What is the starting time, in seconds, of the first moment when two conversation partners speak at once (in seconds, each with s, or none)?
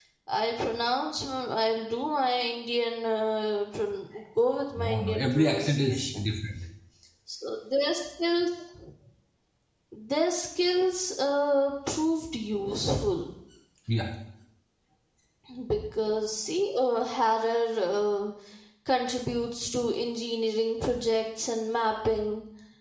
4.8 s